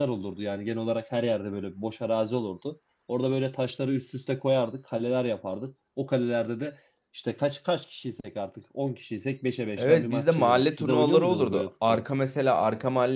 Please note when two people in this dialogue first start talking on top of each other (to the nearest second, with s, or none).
10 s